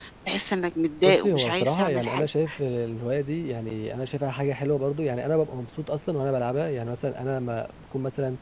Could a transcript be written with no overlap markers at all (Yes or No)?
No